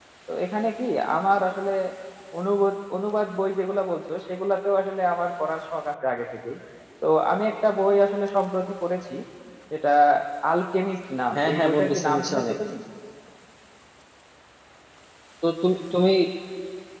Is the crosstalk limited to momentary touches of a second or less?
No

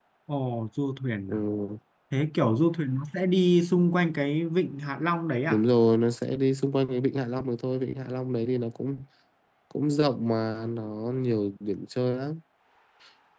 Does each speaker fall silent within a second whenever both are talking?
Yes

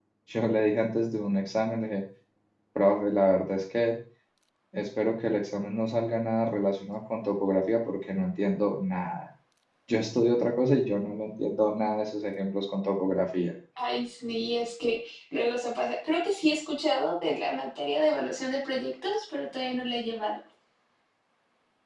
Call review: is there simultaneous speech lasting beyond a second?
No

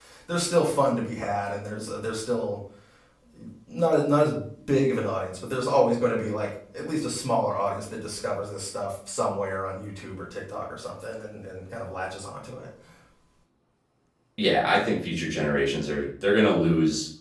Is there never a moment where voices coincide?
Yes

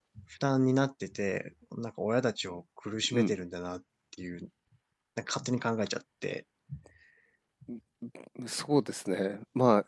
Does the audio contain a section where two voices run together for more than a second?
No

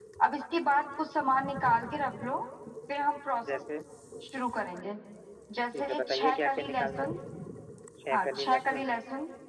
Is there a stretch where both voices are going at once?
Yes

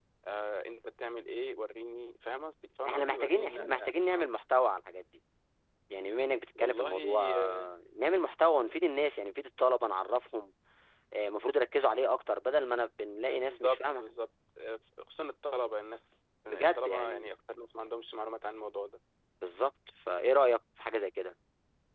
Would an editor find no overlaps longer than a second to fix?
No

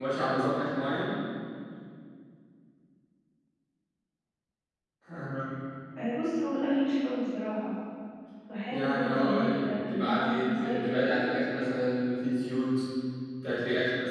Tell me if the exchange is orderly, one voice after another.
No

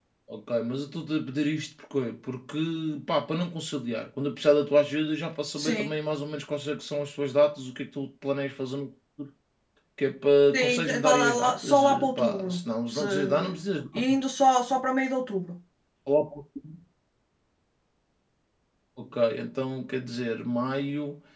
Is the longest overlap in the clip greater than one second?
Yes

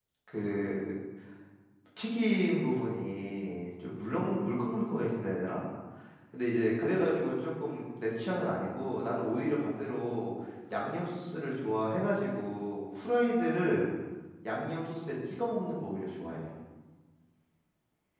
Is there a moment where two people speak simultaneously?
No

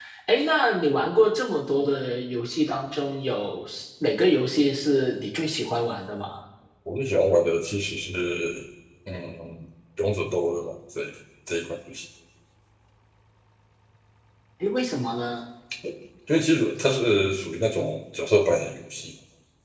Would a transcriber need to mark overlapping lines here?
No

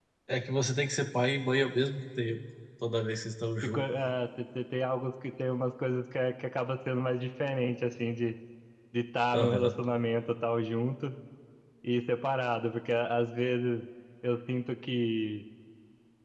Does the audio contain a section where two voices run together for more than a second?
No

